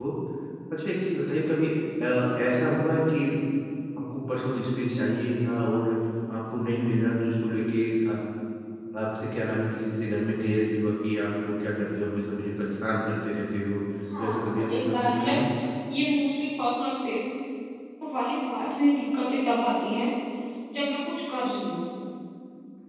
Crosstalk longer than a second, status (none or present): present